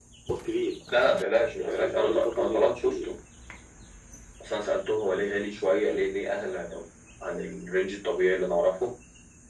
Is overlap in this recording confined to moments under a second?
No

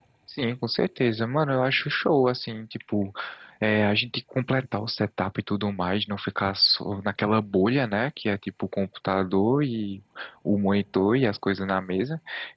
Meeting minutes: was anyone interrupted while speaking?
No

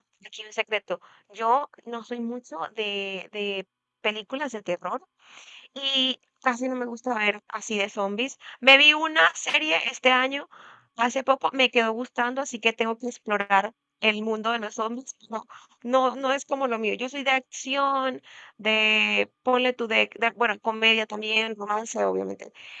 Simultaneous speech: No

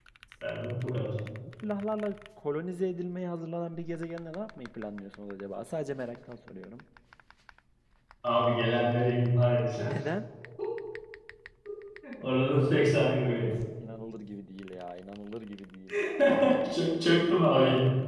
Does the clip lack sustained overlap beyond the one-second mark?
Yes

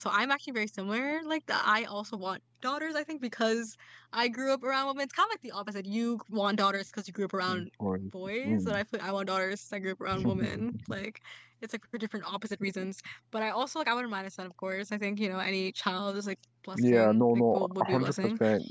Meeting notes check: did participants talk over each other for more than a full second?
Yes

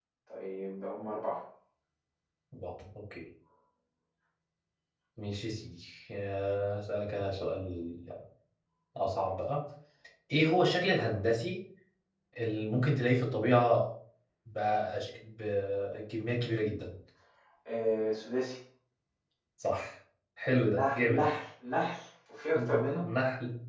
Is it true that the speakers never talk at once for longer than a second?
Yes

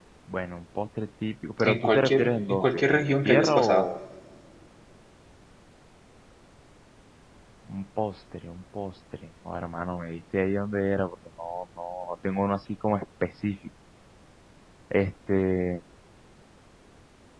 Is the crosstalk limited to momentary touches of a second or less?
No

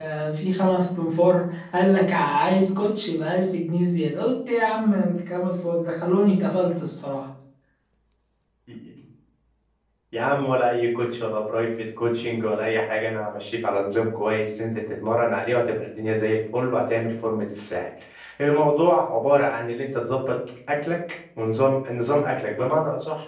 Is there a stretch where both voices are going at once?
No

